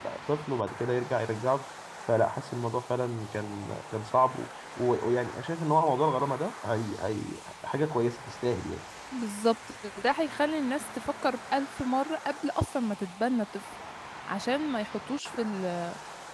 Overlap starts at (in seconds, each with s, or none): none